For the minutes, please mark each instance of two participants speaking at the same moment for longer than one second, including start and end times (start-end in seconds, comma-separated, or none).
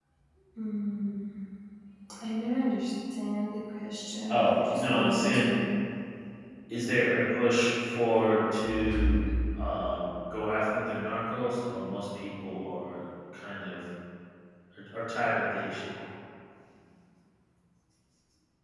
4.3-5.6